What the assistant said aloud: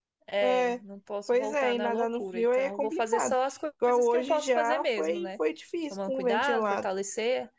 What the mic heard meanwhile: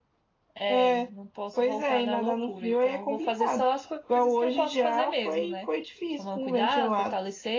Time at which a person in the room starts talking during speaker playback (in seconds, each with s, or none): none